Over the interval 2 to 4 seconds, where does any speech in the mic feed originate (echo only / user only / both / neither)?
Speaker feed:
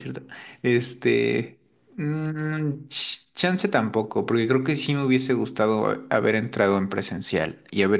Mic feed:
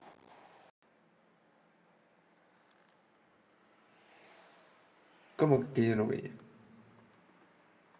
neither